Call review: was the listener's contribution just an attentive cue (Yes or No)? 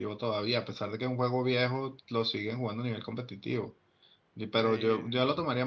Yes